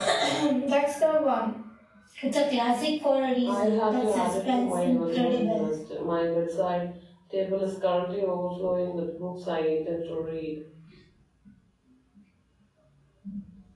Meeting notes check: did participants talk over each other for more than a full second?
Yes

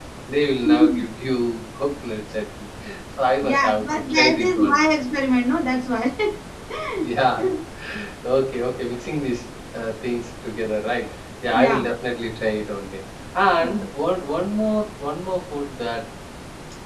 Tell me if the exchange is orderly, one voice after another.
No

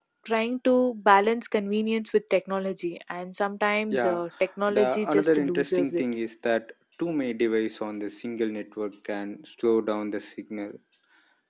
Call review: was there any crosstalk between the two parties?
Yes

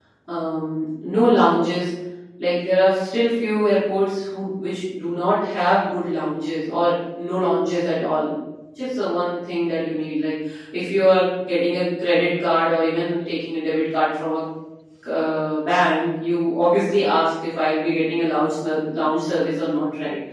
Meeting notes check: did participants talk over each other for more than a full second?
No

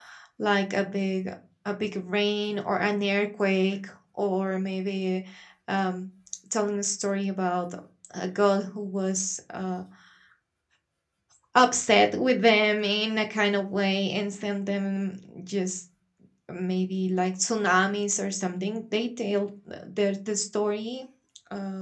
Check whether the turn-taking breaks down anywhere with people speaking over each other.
No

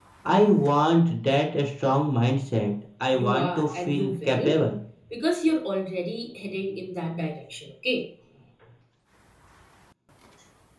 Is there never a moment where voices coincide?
No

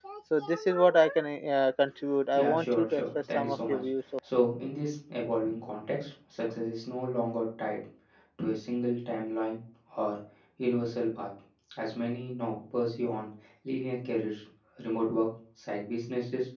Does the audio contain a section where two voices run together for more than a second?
Yes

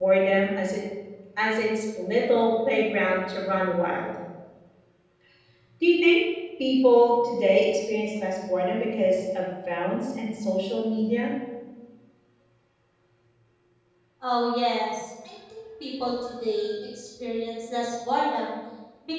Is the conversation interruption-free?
Yes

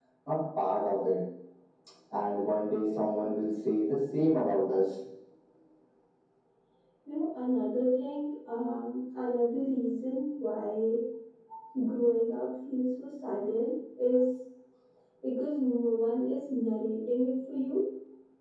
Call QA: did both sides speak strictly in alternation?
Yes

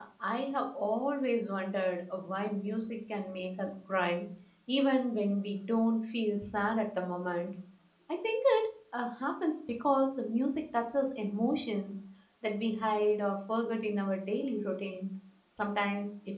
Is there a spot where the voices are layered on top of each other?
No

